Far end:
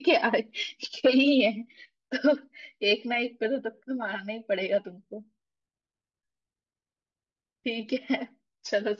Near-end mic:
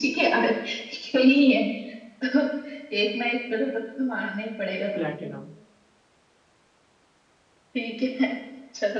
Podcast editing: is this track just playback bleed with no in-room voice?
No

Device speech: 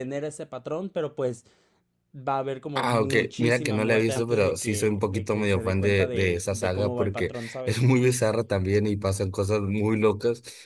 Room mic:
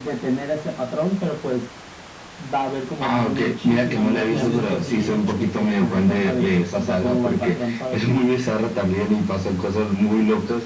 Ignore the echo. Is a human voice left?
Yes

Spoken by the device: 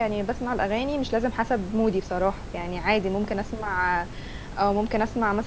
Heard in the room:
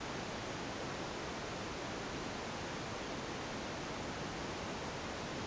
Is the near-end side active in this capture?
No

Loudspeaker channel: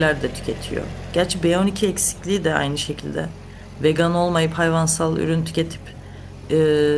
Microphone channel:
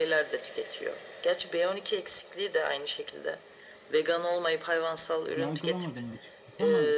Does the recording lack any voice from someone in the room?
No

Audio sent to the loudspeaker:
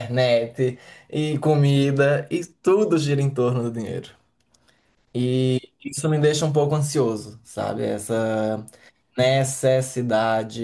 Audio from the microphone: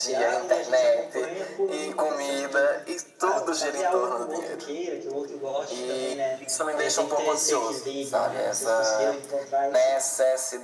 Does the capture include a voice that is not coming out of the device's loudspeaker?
Yes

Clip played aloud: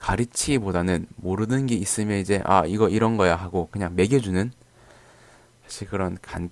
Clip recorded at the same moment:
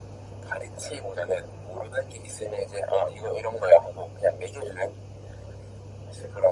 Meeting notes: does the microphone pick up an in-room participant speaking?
No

